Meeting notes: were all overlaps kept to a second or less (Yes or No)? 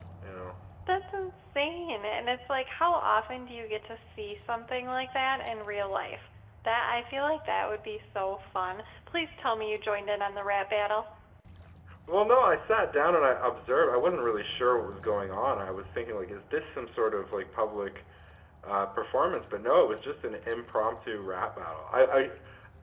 Yes